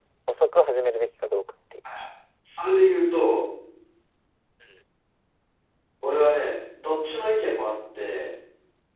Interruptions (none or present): none